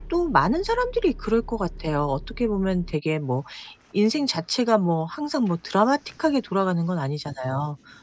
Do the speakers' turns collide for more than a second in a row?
No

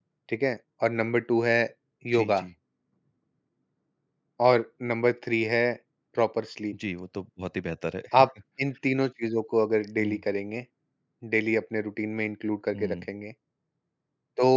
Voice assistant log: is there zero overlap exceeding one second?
Yes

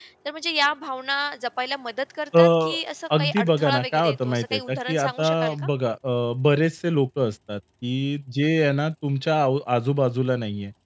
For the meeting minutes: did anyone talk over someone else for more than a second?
Yes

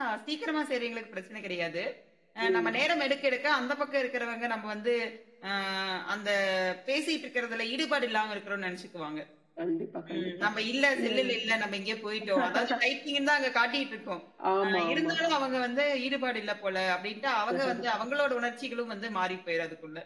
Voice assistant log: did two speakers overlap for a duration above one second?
No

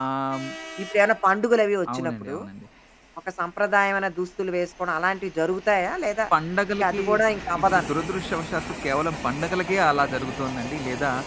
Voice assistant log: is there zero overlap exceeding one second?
Yes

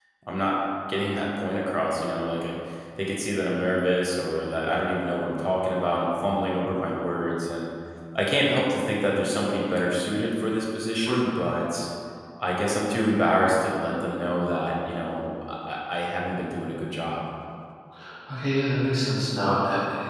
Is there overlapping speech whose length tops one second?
No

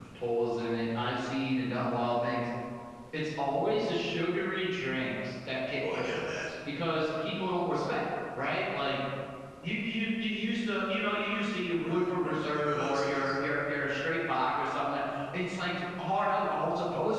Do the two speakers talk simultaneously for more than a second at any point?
Yes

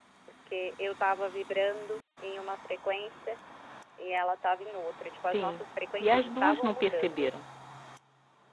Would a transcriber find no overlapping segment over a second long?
No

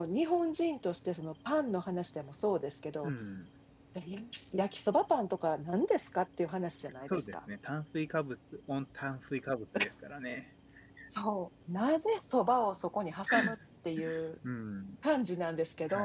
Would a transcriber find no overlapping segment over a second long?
Yes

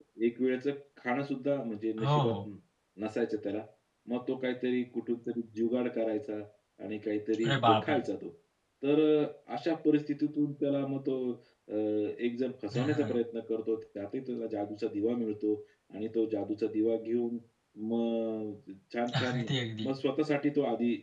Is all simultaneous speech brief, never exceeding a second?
Yes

